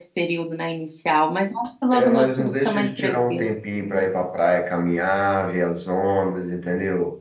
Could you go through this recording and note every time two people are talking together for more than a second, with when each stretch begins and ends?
1.9-3.5

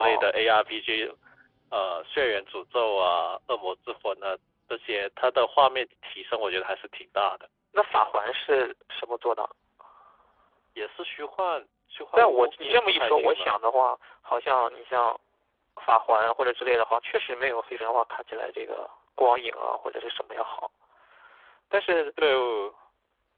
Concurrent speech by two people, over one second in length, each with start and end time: 12.2-13.5

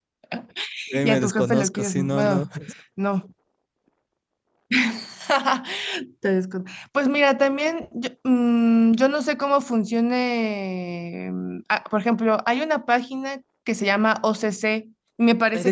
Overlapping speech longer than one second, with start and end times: 0.9-2.5

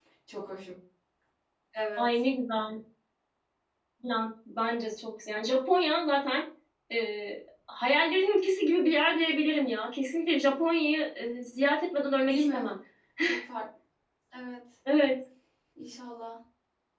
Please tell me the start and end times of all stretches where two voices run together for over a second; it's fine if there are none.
none

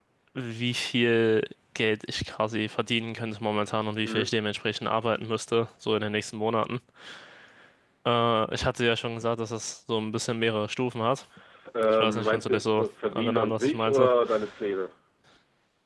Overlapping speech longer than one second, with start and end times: 11.9-14.1

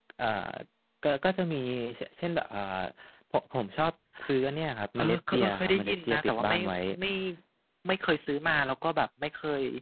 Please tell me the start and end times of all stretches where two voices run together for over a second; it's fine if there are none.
5.0-6.6

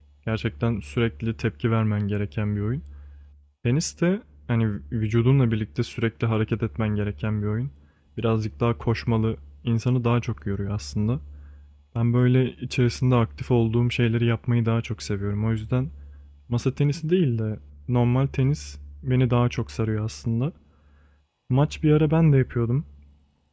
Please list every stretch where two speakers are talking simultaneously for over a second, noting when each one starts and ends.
none

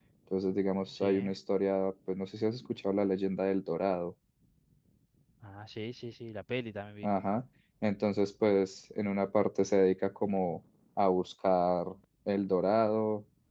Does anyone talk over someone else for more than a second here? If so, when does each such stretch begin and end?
none

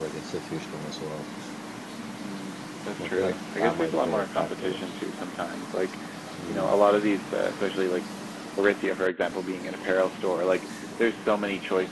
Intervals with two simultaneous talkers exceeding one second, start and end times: 3.0-4.8

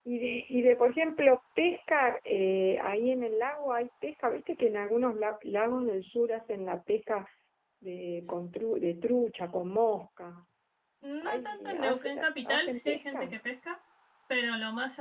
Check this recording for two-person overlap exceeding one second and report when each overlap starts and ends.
11.2-13.4

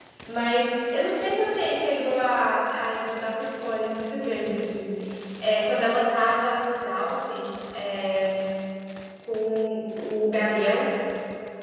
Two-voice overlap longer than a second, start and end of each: none

